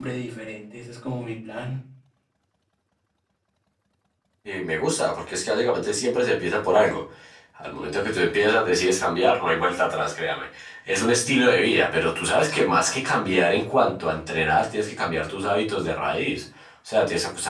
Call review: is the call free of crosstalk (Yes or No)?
Yes